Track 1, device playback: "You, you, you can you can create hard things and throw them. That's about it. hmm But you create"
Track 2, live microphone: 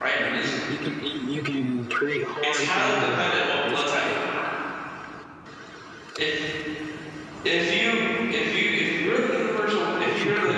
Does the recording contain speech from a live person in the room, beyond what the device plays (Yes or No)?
Yes